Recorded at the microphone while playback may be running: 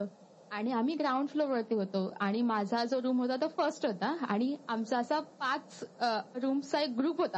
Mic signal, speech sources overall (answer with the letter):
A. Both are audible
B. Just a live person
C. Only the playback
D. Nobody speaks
C